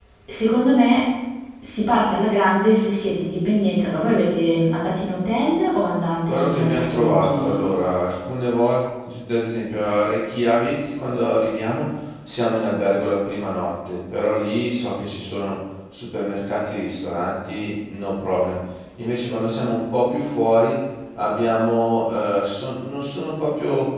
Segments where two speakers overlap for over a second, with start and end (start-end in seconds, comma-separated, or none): 6.3-7.6